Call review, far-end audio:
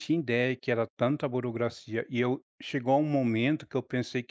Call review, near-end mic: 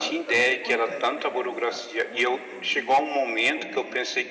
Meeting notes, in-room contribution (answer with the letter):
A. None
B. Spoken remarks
B